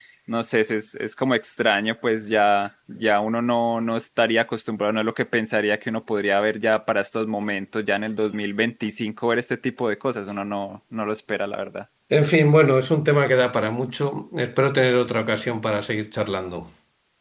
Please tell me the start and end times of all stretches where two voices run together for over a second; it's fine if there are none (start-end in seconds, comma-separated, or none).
none